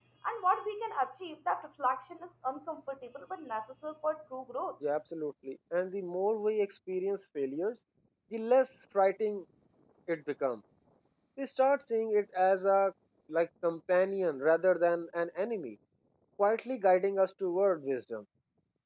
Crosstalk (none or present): none